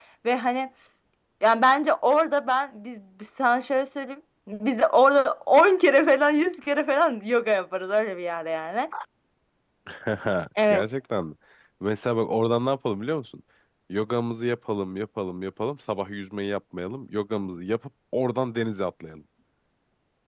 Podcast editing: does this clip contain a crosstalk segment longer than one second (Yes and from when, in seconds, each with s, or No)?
No